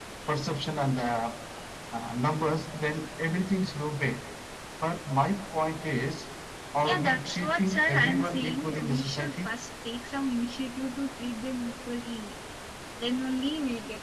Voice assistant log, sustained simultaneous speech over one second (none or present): present